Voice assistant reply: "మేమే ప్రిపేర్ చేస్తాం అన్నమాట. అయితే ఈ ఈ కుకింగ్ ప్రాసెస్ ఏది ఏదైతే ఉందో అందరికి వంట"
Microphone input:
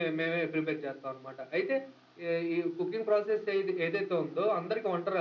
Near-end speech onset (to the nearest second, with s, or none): none